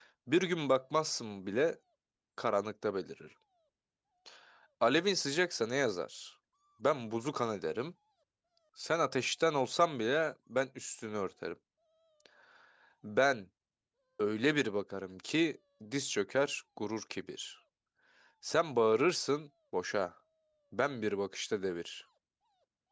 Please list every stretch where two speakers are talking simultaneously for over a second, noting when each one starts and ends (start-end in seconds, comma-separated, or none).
none